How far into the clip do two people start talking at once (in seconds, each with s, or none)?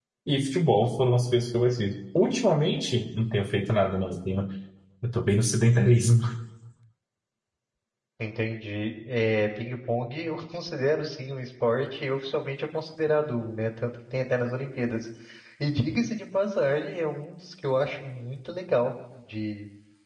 none